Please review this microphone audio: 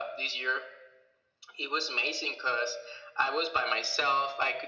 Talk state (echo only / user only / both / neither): echo only